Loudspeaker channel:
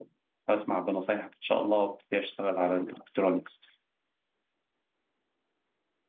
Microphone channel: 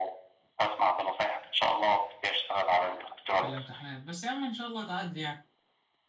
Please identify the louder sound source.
echo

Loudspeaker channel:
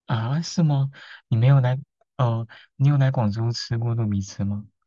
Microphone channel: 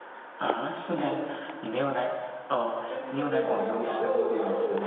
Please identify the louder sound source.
echo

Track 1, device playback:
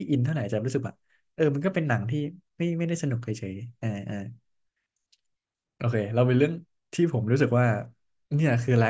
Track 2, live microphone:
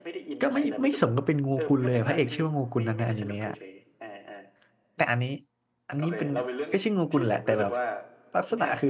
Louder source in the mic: user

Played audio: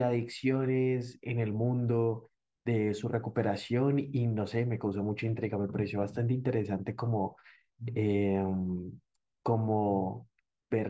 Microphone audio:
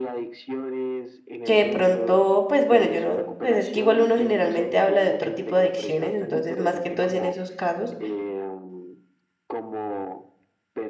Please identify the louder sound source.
user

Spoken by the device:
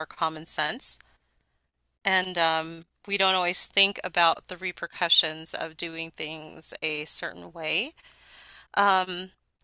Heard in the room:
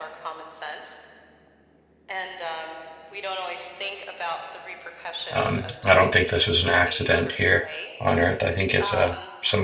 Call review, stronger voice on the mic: user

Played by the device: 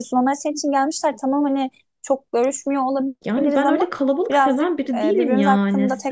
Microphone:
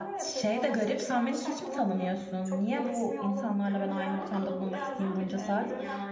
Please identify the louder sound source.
user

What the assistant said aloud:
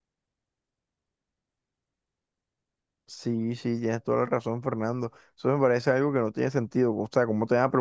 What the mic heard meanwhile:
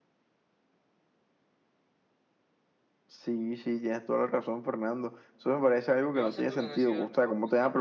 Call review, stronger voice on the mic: echo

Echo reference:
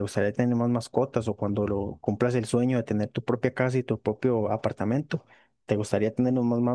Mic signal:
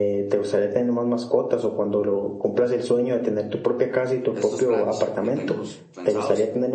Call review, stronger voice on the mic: echo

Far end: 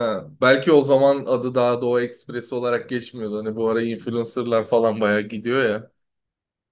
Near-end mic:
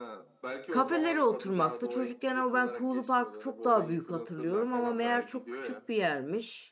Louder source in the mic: user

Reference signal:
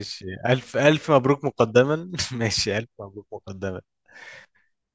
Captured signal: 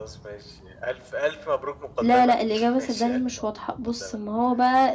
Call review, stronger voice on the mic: user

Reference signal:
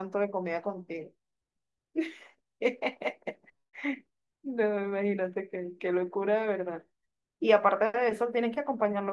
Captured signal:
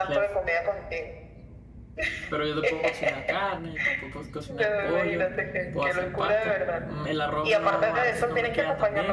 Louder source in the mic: echo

